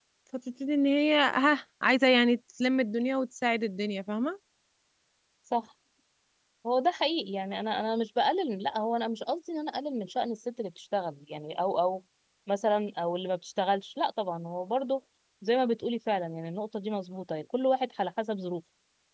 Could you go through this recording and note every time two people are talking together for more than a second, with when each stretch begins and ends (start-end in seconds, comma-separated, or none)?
none